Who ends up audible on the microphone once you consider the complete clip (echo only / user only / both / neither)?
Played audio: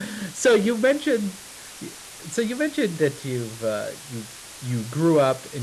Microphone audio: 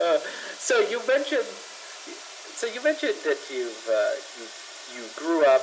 echo only